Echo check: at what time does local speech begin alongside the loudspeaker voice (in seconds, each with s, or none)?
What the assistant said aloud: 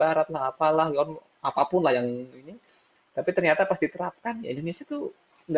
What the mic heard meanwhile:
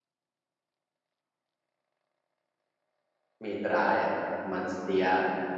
3.4 s